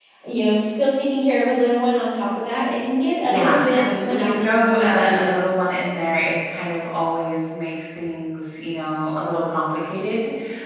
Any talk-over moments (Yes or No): Yes